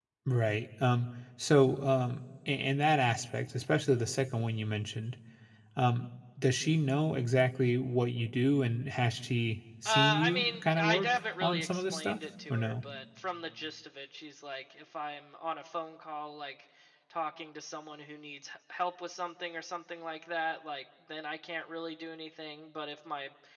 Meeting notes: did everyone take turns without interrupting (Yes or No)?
No